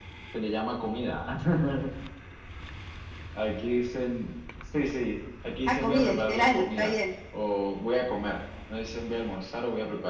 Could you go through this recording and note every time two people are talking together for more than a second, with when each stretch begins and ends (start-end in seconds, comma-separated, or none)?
5.7-6.9